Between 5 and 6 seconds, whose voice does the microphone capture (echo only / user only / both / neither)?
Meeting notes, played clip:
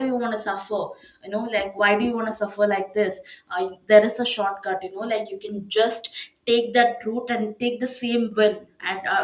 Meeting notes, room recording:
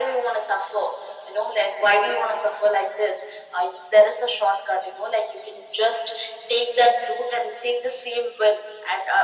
echo only